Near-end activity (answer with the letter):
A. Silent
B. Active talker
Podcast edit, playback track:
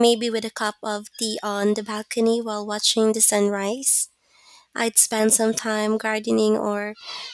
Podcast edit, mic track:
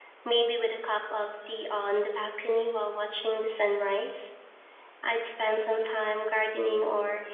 A